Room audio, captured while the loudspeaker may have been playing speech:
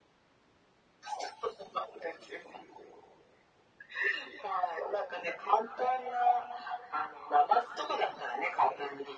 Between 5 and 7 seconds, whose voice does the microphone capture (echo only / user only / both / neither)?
echo only